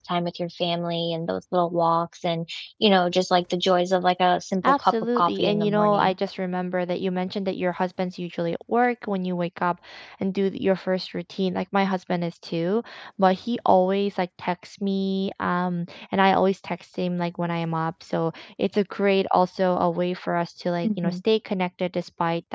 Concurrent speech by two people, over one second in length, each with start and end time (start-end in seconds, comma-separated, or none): 4.6-6.1